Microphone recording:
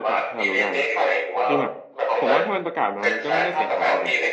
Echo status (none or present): present